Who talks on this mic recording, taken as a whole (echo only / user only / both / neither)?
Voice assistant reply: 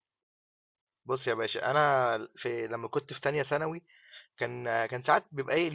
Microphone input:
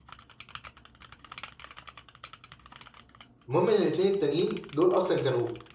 user only